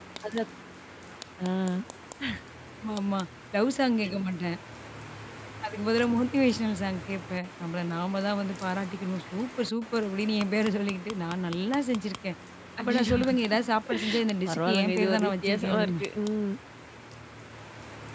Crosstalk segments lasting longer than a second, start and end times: 14.5-16.0

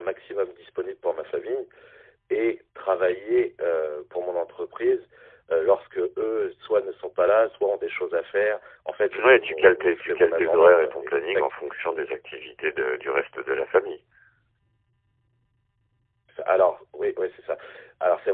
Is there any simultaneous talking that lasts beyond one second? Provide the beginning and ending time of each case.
9.2-11.4

